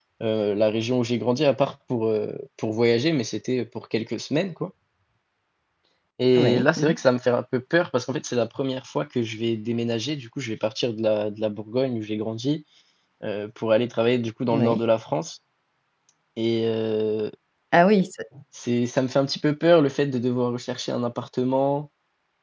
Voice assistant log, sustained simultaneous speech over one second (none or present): none